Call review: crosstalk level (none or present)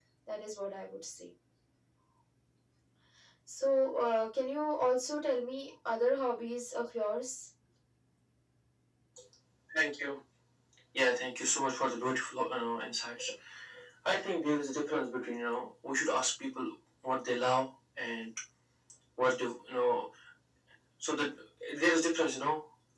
none